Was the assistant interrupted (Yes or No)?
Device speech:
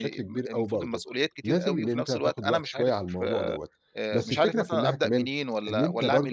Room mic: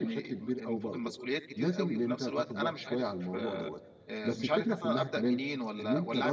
No